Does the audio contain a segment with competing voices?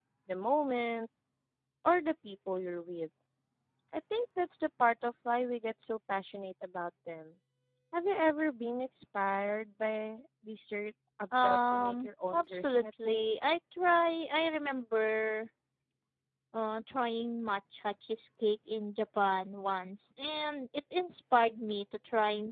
Yes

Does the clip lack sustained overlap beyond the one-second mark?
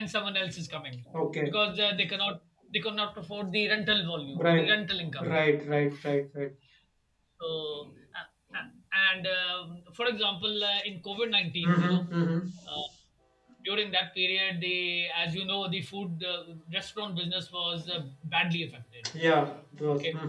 Yes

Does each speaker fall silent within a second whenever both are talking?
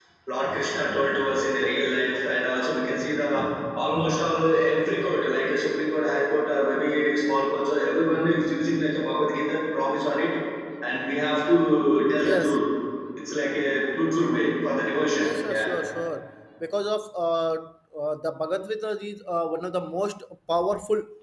Yes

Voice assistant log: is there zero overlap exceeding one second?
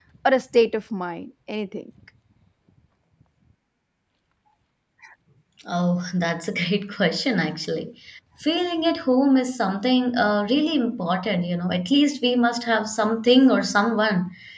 Yes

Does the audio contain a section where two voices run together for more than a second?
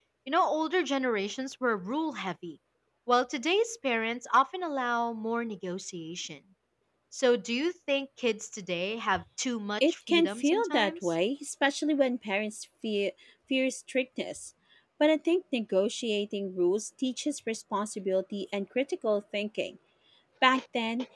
Yes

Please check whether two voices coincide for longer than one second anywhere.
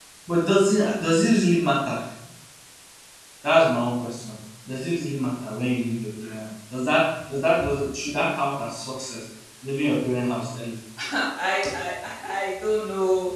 No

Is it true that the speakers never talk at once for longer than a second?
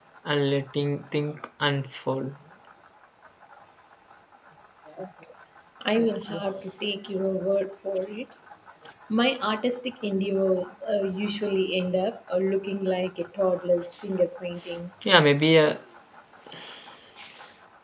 Yes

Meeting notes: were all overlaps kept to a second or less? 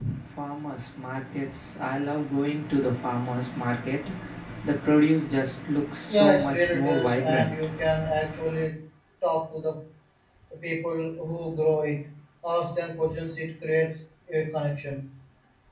No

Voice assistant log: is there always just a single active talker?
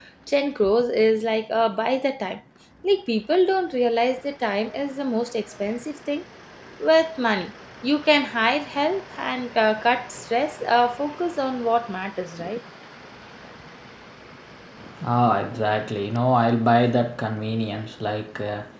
Yes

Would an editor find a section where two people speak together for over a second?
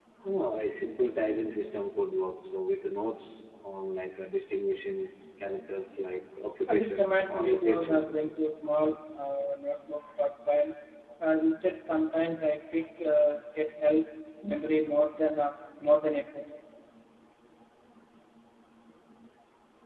Yes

